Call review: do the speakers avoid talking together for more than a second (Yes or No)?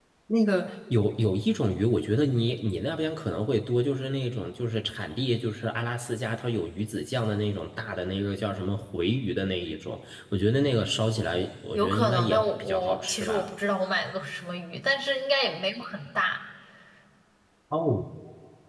No